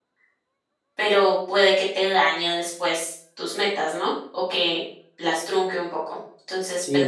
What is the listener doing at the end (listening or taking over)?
listening